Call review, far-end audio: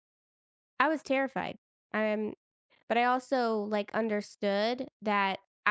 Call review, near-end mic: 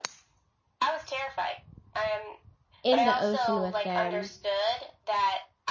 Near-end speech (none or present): present